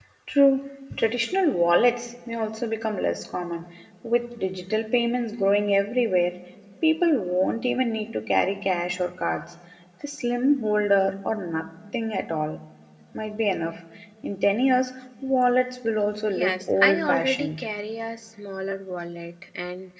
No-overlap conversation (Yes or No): No